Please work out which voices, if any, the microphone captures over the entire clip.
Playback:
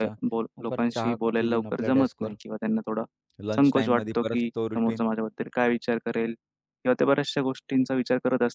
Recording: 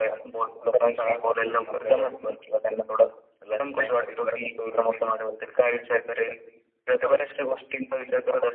echo only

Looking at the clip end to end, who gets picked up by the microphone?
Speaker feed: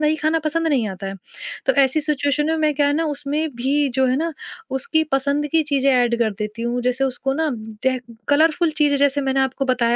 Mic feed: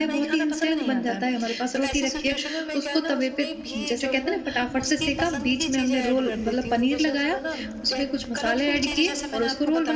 both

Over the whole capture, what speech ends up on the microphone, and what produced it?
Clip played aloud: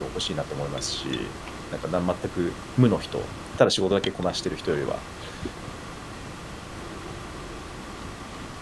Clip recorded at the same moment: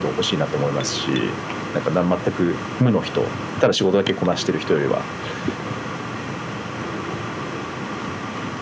echo only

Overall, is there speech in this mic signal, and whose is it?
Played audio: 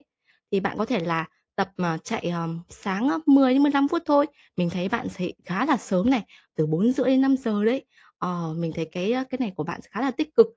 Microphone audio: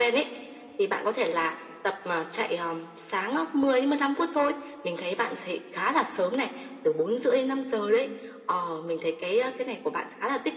echo only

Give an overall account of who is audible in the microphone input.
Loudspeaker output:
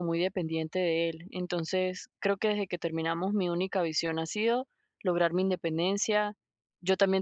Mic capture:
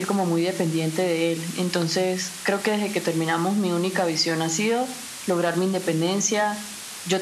echo only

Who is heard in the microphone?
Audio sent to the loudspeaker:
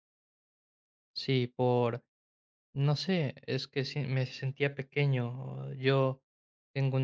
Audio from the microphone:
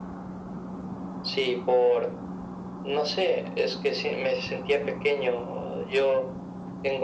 echo only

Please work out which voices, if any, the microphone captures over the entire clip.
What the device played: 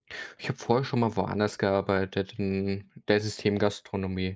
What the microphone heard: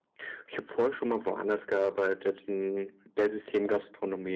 echo only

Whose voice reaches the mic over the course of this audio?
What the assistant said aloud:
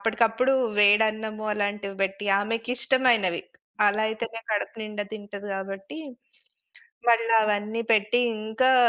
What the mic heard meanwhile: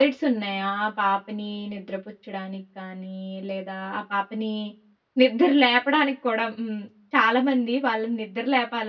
user only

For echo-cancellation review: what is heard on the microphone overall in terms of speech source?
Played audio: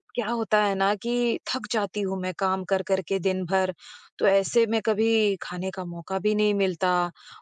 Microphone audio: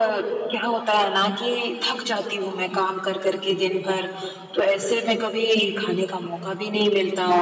echo only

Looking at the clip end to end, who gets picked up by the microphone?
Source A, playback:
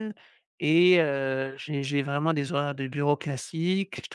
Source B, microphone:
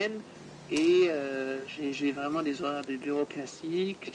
echo only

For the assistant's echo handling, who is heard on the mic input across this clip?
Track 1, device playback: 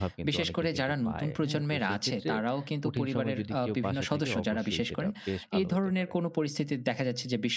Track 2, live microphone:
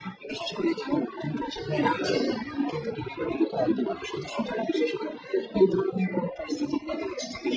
echo only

